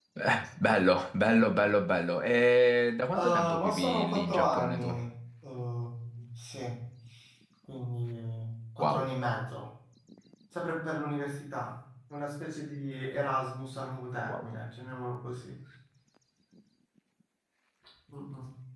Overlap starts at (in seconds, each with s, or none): 3.1 s